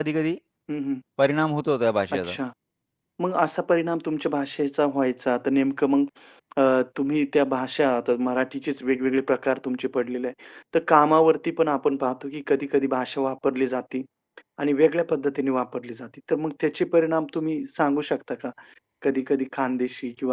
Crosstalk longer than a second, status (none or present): none